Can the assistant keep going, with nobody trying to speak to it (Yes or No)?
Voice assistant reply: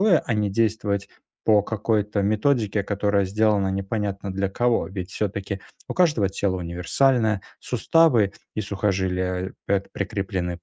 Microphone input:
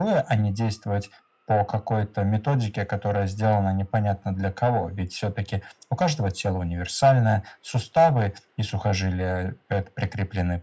Yes